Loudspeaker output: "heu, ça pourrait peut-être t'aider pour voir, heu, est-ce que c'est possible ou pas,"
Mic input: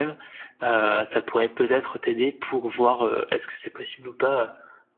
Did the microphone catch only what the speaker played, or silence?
Yes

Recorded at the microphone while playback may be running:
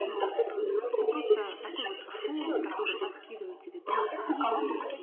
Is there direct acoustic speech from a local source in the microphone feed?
Yes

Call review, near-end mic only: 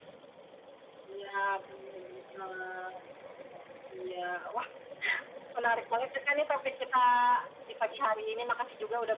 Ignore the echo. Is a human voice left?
No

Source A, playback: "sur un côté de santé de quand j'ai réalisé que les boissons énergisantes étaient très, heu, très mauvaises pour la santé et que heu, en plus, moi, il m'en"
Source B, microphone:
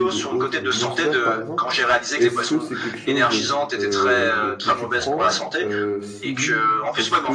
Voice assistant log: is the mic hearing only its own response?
No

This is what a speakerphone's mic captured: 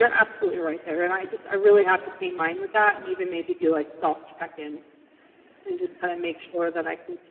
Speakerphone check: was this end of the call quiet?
Yes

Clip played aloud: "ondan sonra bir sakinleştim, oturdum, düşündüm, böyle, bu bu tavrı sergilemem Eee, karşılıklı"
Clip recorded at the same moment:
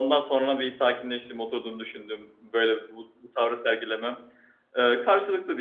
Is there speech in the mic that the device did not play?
No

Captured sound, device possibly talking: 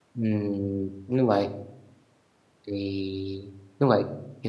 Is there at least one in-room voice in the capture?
Yes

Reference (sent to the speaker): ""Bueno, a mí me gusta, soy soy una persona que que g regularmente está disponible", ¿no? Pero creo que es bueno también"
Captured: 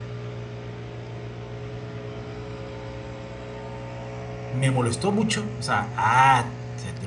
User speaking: Yes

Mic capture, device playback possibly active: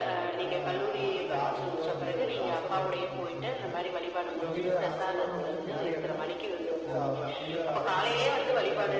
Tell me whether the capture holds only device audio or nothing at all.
No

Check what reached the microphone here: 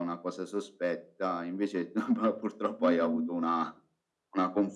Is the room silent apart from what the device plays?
No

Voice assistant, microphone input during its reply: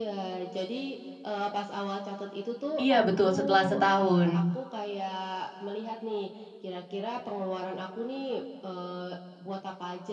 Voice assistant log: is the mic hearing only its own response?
No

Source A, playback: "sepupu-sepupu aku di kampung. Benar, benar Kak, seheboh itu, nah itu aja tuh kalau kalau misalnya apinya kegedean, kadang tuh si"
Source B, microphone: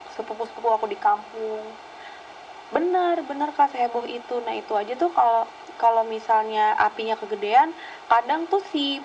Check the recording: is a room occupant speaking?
No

